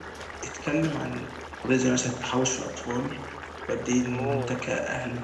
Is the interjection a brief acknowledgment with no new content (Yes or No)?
Yes